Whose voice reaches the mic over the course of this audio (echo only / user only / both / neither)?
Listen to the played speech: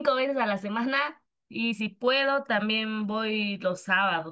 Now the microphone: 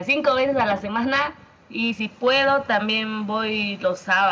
echo only